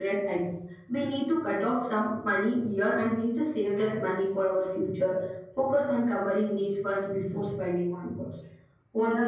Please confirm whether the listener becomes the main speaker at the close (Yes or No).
Yes